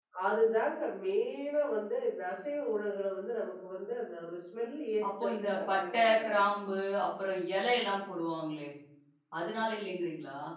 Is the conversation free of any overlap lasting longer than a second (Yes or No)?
No